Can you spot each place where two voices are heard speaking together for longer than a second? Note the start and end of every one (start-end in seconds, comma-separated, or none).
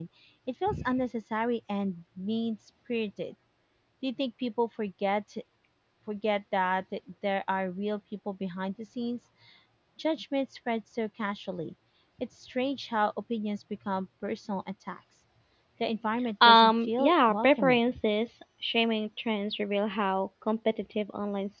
16.4-17.8